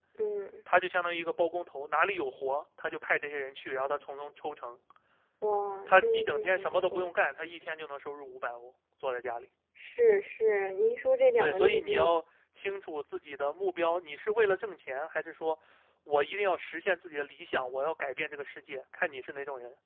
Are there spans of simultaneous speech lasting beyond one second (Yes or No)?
Yes